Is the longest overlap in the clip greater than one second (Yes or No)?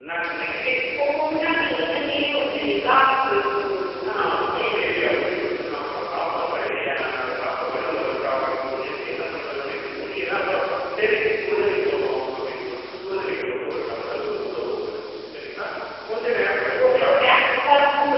No